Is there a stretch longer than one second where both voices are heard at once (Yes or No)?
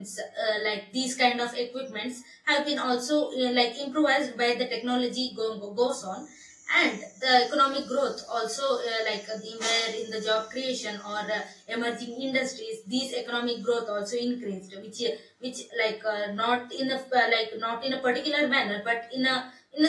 No